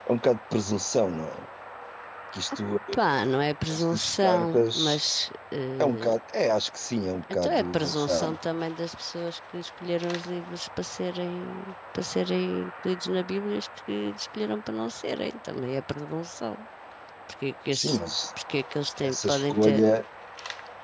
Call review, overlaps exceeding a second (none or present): present